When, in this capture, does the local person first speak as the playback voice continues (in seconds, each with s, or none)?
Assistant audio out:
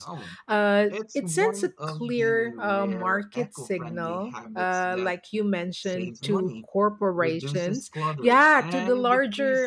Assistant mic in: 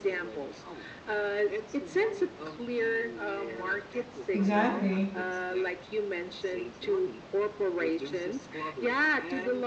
4.3 s